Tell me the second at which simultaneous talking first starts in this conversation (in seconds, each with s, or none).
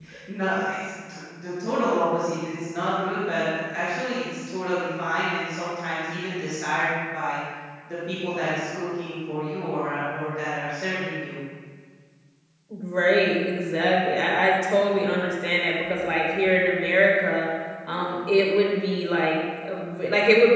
none